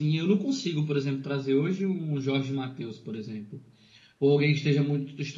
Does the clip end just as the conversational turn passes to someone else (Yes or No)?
No